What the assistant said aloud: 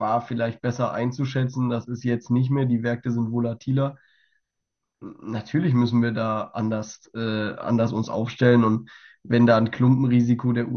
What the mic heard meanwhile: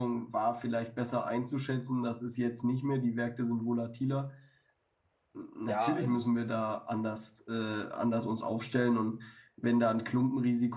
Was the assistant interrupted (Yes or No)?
Yes